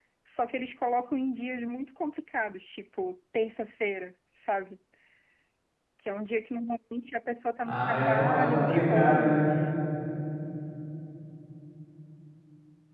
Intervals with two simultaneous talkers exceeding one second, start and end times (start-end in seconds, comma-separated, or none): 7.7-9.4